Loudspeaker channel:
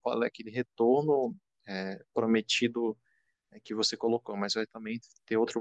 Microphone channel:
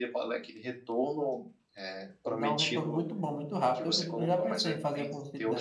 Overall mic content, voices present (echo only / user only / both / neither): both